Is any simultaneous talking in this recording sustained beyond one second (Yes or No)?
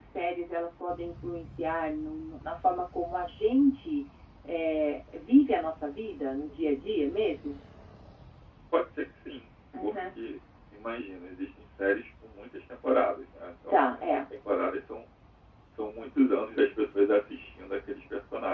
No